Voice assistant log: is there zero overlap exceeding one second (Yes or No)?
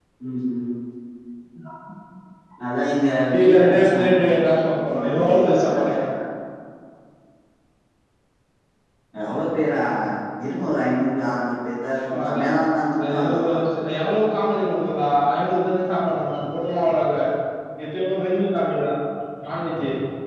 No